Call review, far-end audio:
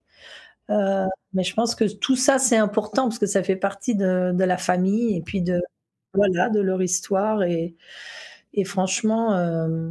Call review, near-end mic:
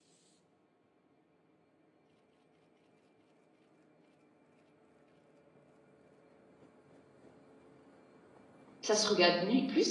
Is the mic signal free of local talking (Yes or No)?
No